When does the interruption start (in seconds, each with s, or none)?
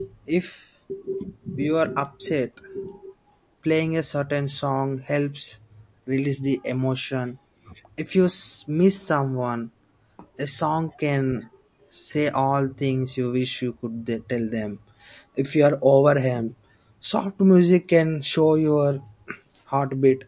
none